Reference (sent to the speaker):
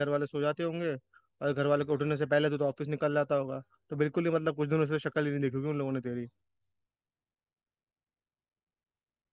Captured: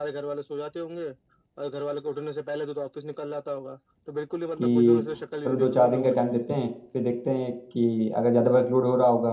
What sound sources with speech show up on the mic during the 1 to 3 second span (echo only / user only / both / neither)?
echo only